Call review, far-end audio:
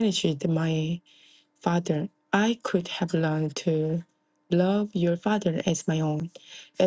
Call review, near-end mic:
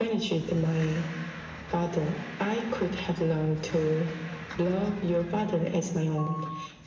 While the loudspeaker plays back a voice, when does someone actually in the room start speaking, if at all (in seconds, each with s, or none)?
none